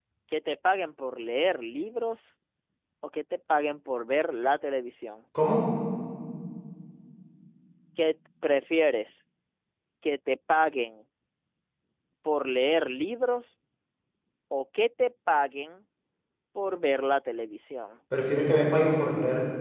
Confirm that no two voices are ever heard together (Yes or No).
Yes